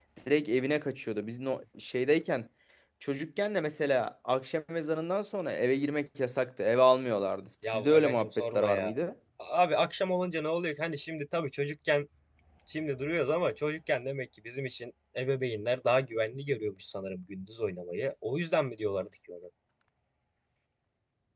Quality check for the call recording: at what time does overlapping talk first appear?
7.6 s

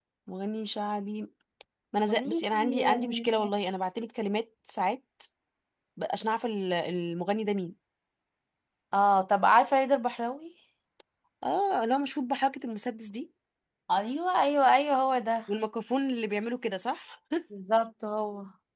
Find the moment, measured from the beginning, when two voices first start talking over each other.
2.1 s

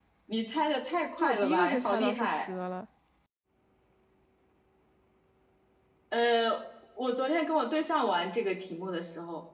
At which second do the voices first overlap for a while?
1.2 s

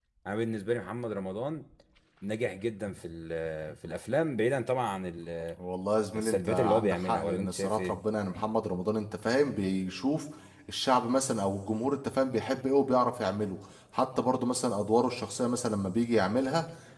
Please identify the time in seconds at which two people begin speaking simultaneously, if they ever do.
6.2 s

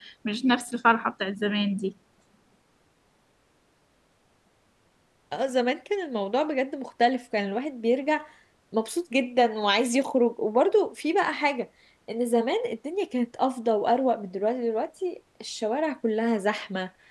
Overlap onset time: none

